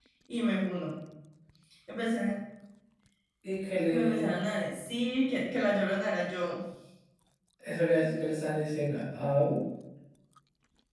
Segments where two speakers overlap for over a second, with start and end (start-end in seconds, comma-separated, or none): none